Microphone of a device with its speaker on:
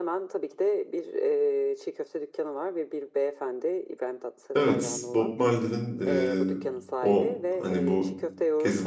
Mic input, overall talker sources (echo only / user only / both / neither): both